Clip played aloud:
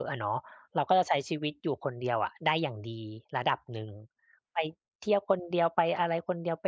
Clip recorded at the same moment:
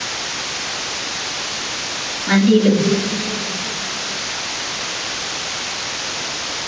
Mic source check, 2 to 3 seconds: user only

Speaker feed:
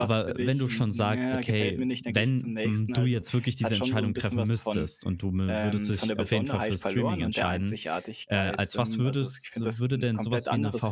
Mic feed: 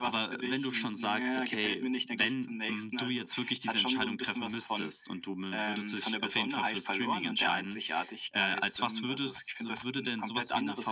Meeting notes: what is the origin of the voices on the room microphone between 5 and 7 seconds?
echo only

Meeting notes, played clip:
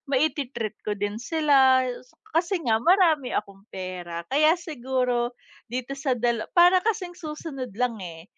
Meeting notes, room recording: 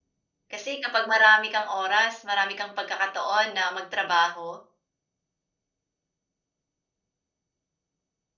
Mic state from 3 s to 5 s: user only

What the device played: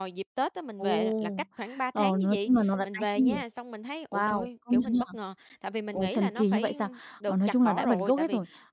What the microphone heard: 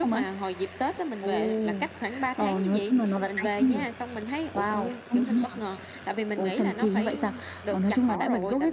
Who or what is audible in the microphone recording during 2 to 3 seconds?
echo only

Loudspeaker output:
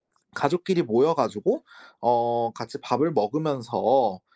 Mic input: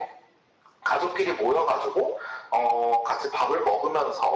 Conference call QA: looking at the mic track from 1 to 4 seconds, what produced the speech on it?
echo only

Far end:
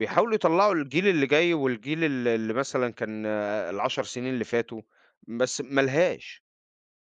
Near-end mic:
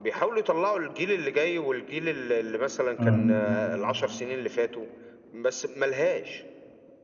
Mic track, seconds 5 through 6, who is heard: echo only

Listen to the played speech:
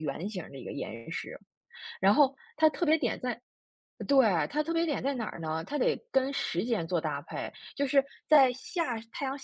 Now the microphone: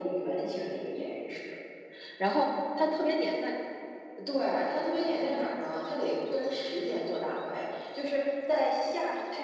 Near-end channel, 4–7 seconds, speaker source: echo only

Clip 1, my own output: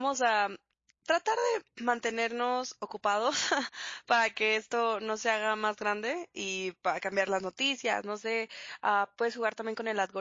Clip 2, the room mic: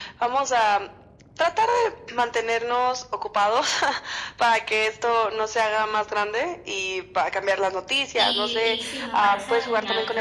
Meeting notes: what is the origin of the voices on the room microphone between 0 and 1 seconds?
echo only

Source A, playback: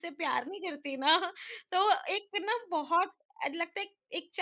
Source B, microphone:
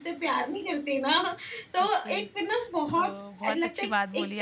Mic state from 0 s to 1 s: echo only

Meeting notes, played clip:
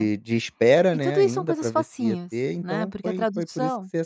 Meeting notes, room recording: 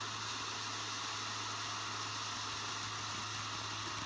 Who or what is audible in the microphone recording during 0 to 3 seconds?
neither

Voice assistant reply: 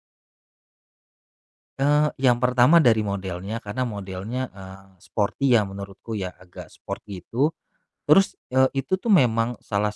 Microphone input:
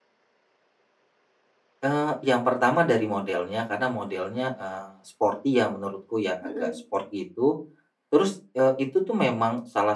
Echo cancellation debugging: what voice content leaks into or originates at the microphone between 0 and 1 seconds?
neither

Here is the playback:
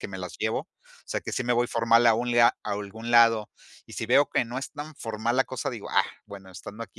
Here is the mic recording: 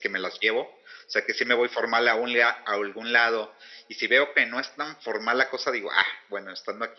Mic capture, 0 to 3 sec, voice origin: echo only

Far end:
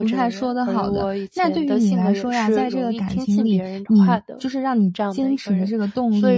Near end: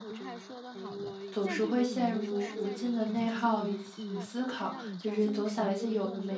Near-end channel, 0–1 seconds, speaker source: echo only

